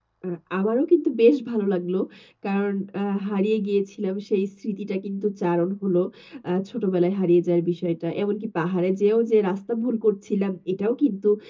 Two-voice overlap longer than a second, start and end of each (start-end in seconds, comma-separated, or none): none